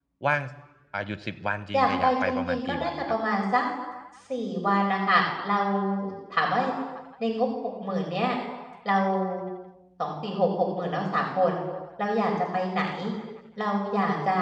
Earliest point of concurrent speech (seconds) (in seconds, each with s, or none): 1.7 s